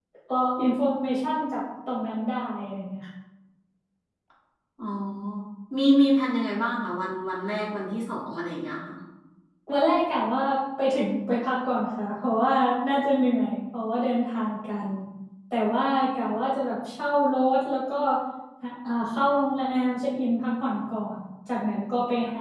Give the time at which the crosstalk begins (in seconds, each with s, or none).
none